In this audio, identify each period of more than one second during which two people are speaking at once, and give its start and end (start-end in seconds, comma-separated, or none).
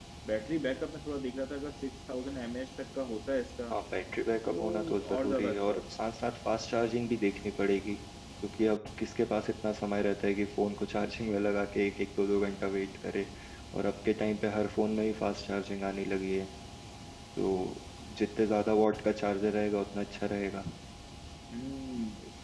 4.5-5.8